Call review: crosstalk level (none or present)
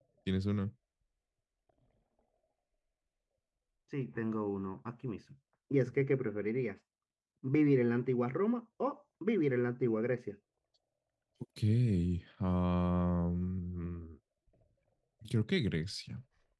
none